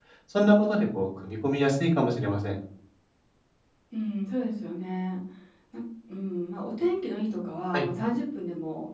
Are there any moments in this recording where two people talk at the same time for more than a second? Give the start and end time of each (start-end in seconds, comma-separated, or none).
none